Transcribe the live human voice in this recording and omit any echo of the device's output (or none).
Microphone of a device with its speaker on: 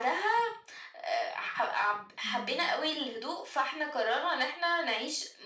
اهم.